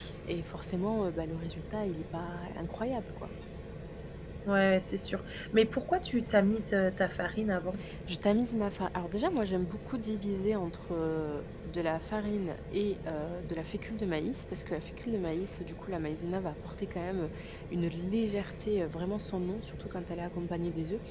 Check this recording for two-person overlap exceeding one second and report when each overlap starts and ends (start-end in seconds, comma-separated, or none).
none